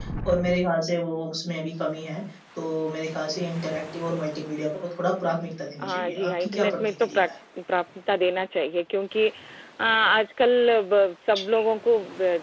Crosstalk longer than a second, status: present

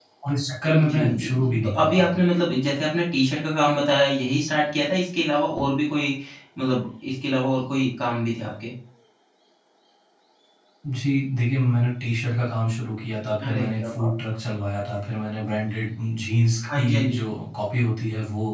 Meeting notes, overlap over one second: present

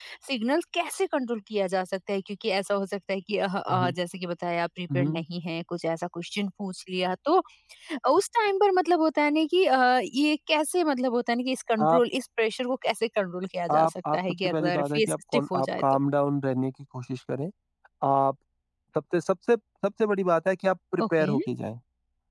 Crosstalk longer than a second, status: present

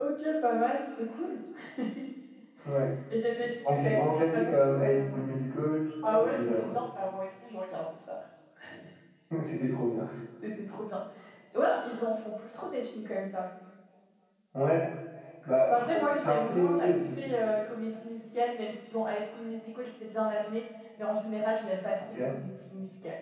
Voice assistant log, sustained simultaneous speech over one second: present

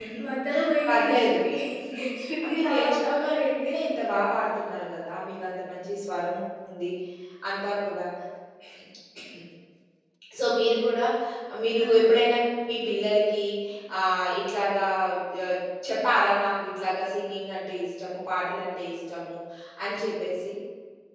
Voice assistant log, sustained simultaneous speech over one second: present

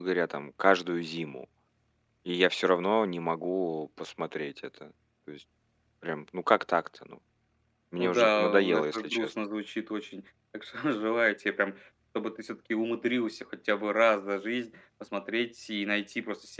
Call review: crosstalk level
present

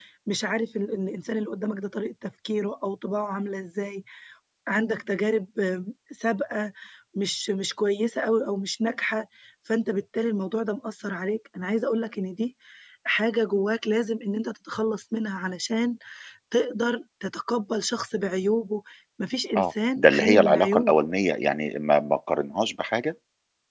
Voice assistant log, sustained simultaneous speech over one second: present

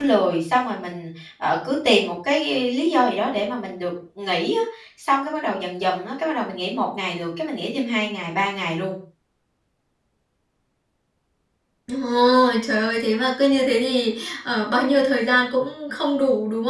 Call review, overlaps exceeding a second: none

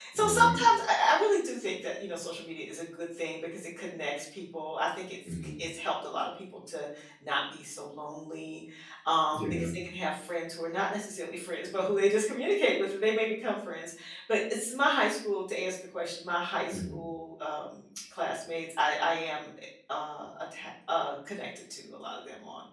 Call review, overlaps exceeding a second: none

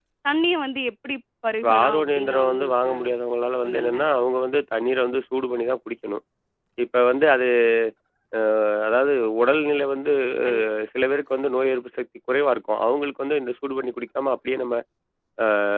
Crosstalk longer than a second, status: present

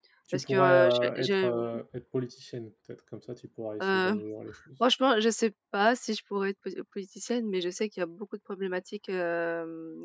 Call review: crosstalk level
present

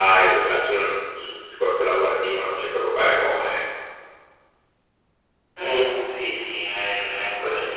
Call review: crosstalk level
none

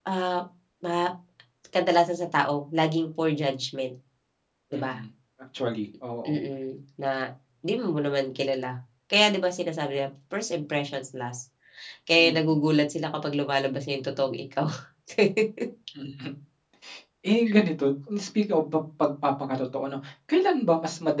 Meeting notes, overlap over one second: none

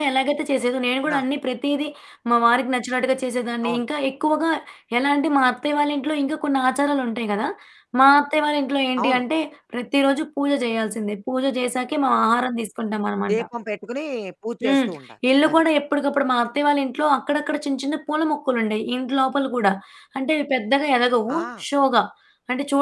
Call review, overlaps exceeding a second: none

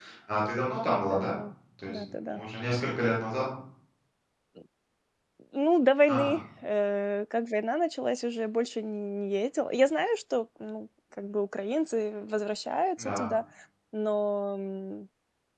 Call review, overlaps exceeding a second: none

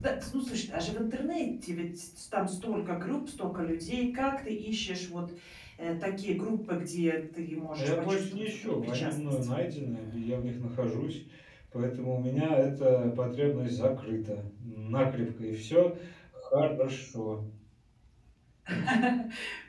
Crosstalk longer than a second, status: present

